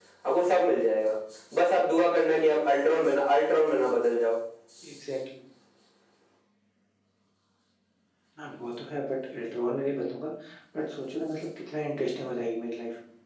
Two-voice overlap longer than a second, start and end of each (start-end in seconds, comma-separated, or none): none